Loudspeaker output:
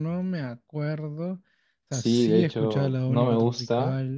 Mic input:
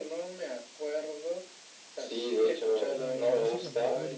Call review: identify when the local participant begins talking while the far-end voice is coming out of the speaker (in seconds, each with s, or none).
2.9 s